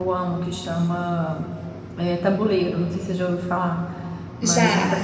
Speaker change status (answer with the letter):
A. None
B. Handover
A